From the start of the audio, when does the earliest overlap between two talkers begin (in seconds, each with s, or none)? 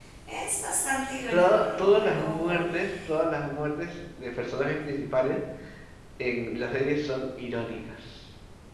1.3 s